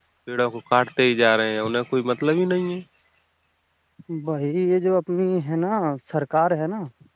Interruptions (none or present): none